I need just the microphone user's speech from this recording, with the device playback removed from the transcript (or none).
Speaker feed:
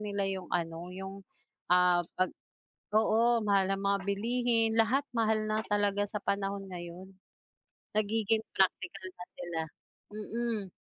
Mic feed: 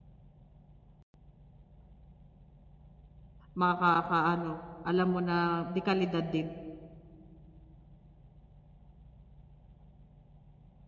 makakaano, alam mo na, de-kalidad din.